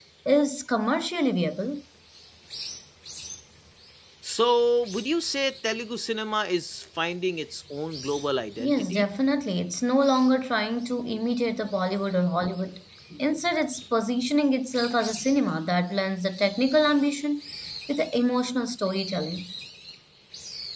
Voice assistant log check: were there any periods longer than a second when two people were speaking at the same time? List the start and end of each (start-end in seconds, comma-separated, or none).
none